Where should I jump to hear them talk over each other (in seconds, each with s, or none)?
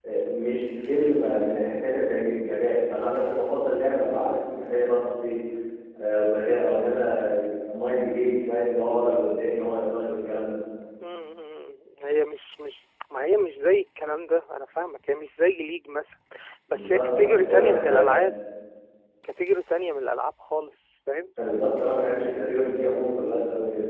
16.7 s